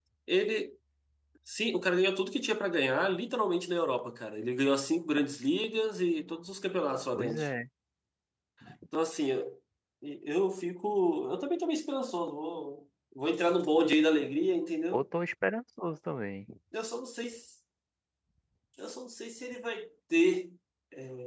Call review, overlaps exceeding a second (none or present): none